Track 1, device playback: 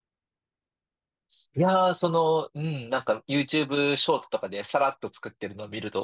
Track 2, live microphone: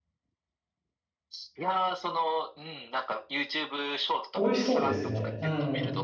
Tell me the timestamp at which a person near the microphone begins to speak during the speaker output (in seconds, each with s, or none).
4.3 s